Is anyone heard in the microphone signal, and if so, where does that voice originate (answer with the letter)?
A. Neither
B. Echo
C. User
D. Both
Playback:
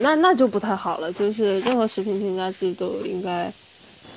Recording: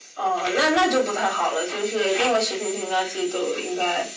B